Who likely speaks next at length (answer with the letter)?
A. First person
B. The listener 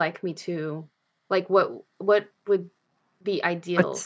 A